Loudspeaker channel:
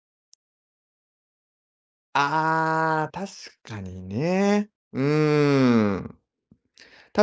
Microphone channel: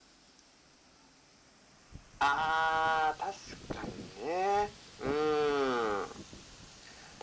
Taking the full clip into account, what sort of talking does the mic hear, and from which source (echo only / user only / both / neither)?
echo only